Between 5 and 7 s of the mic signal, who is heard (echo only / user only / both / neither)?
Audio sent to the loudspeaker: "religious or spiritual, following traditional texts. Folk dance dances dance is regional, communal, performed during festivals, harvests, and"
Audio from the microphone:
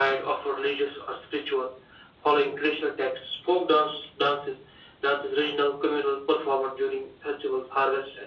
echo only